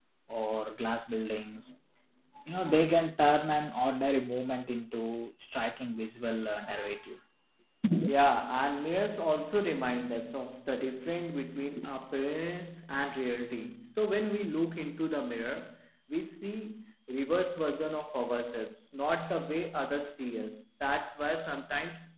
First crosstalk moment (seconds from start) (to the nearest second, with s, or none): none